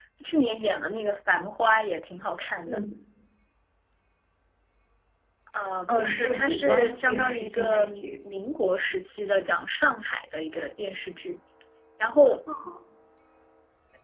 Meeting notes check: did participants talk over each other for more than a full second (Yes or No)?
Yes